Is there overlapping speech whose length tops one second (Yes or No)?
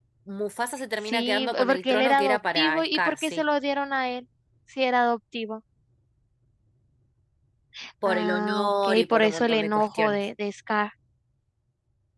Yes